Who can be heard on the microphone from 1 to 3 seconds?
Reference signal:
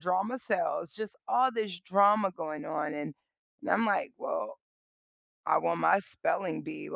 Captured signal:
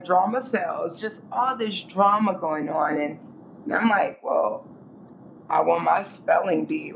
echo only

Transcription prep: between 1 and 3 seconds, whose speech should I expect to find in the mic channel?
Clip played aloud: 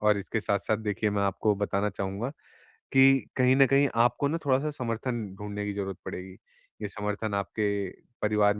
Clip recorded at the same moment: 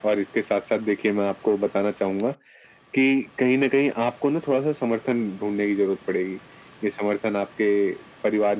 echo only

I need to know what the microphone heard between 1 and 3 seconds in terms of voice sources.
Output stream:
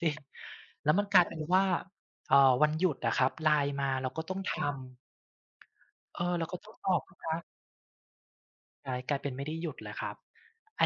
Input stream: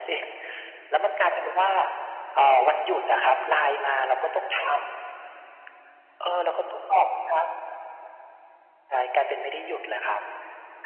echo only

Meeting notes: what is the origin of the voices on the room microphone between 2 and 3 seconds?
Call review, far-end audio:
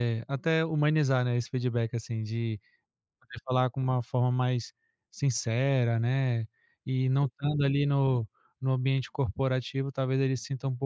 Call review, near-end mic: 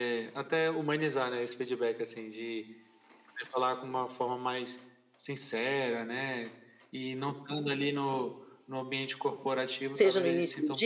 echo only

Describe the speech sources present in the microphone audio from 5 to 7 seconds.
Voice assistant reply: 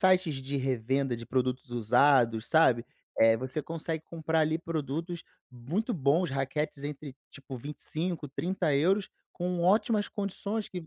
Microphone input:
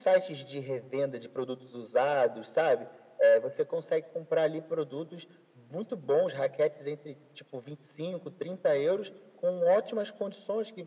echo only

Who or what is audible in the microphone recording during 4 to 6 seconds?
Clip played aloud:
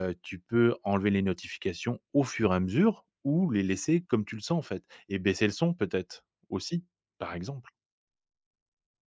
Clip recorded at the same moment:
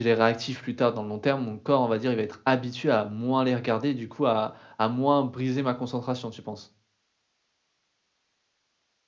user only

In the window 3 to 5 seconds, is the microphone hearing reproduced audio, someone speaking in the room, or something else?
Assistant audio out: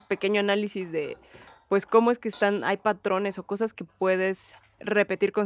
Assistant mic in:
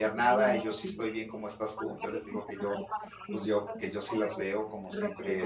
both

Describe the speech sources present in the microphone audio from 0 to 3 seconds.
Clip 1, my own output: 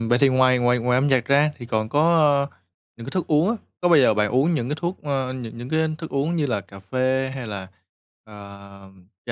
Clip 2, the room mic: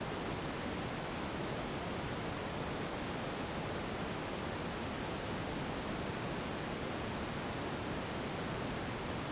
neither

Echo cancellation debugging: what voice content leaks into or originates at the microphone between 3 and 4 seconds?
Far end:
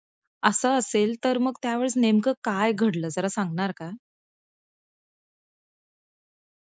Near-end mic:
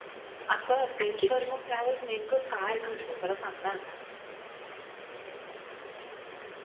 echo only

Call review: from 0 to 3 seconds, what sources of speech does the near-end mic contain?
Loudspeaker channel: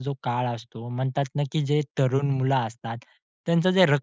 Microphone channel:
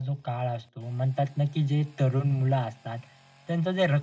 echo only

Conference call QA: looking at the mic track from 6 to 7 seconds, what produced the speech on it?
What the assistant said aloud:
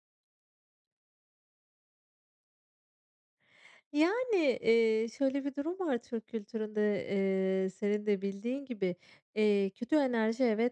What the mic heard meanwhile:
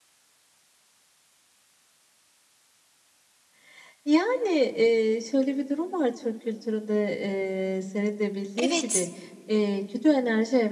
echo only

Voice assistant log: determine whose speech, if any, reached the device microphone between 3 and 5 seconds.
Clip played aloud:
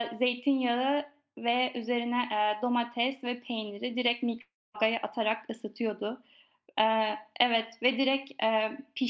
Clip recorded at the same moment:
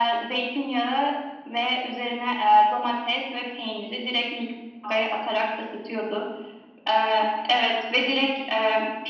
echo only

